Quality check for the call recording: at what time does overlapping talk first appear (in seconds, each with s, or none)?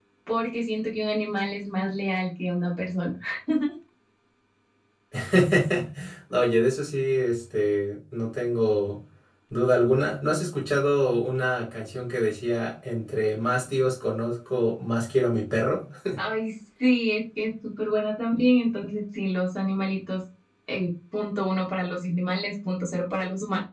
none